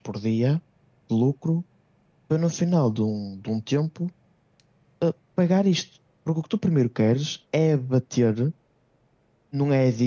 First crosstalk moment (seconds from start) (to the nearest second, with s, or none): none